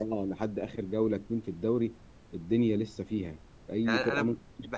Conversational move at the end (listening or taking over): taking over